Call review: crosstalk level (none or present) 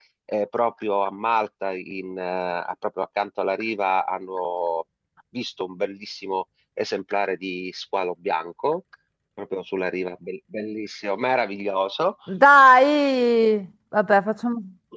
none